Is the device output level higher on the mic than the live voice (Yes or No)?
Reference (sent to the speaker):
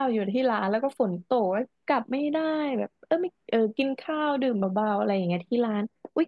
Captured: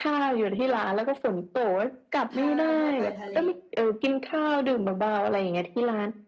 Yes